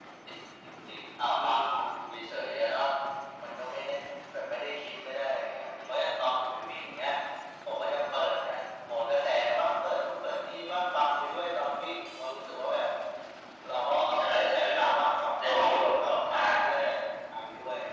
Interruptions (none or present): present